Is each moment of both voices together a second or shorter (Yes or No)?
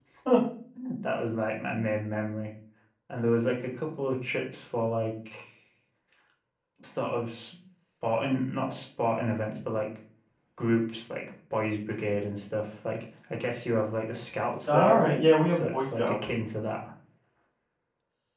No